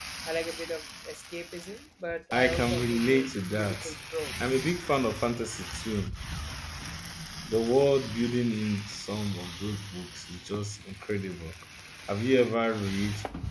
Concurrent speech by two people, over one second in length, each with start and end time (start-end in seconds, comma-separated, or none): 2.3-3.8